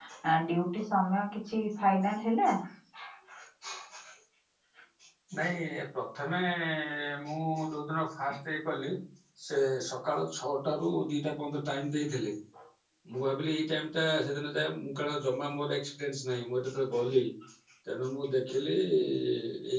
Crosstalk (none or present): none